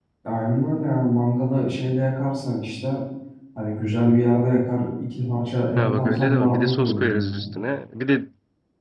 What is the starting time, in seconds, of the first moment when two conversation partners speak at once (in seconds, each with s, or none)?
5.8 s